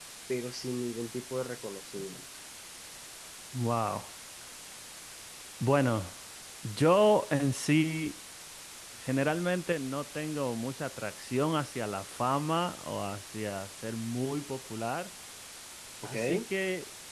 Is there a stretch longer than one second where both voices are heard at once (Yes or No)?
No